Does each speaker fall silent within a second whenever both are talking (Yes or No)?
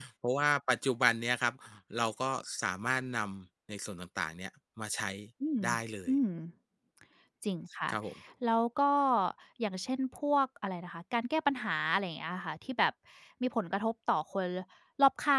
Yes